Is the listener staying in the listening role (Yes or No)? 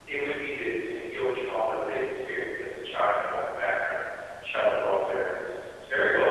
Yes